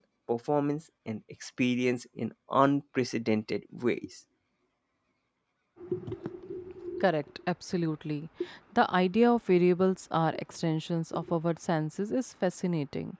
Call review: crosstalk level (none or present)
none